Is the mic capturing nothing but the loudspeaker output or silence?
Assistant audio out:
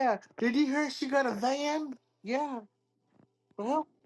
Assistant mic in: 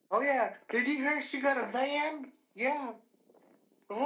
Yes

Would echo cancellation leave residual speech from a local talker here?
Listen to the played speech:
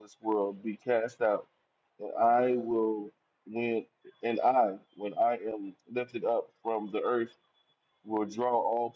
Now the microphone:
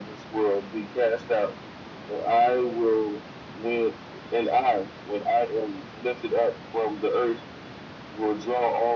No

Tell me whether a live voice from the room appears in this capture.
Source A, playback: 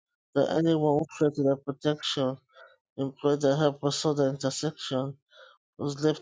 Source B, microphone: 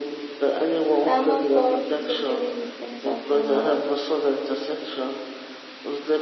Yes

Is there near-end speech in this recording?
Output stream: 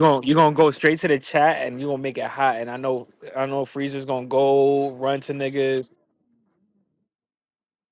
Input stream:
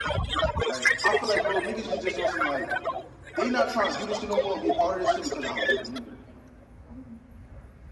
Yes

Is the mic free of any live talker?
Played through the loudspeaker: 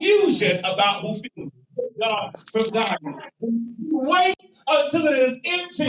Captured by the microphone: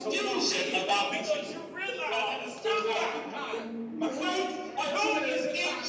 No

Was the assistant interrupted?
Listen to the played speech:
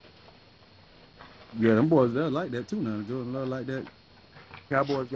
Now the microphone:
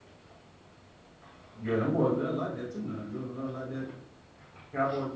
No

